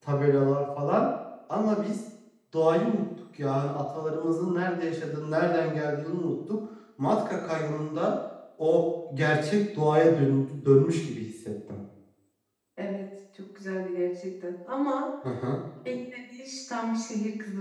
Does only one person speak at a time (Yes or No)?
Yes